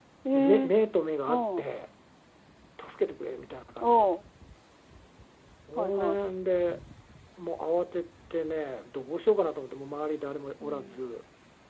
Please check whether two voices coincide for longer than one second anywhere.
No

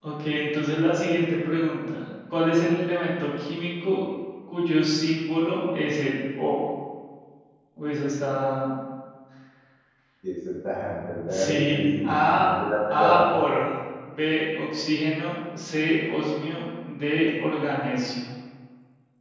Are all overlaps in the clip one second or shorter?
No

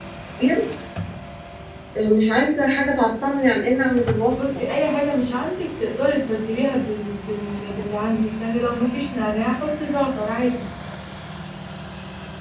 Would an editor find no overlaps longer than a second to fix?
Yes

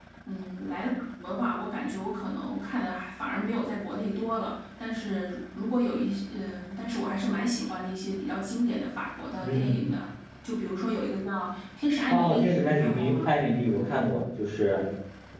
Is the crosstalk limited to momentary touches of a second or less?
No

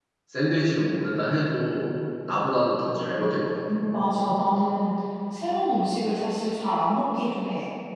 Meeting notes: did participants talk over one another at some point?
No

